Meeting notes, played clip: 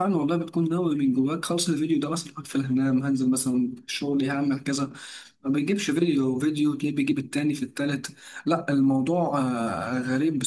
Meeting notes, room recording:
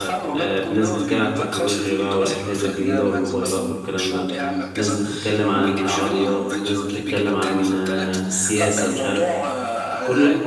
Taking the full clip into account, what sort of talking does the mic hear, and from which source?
both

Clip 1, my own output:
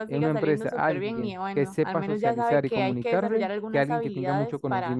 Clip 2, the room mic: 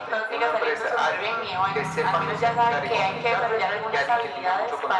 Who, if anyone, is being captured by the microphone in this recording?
echo only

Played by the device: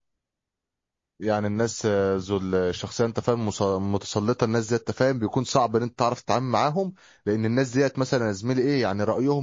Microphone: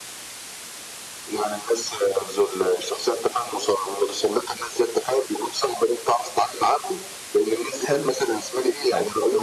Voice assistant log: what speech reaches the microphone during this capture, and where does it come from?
both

